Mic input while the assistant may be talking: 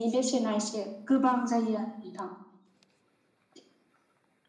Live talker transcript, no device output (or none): none